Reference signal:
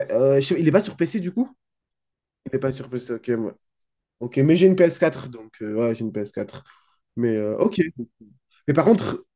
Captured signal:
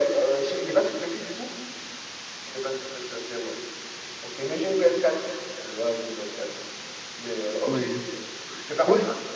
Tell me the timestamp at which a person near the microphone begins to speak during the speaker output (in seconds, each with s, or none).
7.7 s